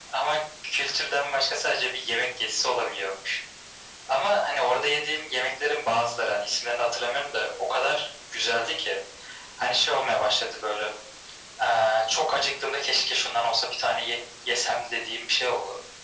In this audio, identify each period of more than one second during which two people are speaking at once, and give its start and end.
none

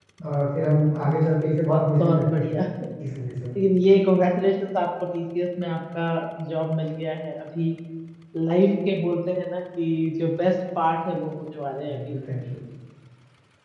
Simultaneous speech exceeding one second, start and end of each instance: 1.1-2.5

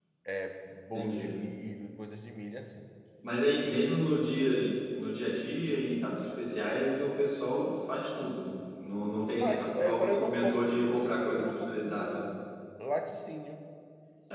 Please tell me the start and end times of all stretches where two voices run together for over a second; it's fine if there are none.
9.4-12.2

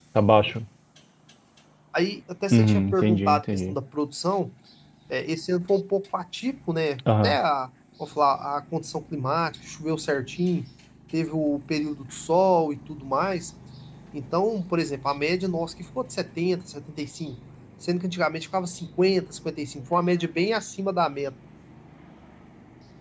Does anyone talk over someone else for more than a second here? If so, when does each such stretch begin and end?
2.5-3.8

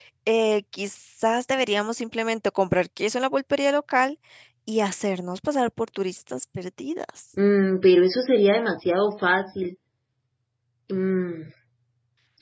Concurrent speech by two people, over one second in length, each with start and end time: none

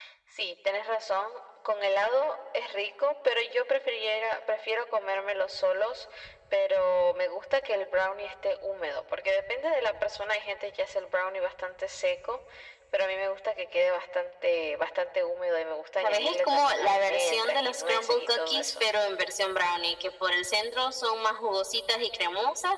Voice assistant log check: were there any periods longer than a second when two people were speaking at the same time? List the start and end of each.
16.0-18.8

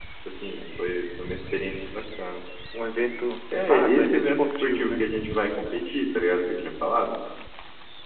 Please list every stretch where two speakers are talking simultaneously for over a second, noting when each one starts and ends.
3.7-5.0

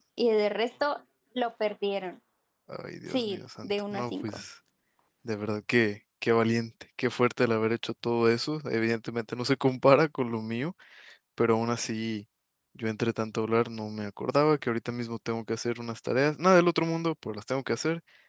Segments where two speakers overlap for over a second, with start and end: 3.1-4.4

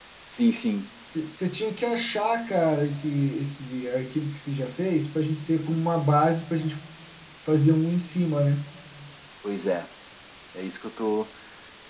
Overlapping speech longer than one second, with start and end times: none

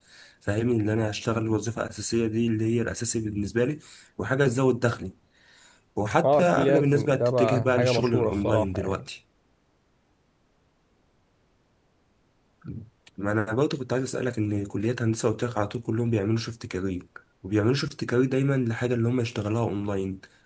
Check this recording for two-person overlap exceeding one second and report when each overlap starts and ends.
6.2-9.0

